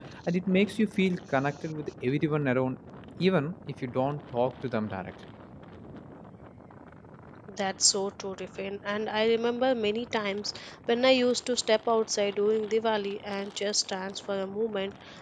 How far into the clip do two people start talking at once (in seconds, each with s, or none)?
none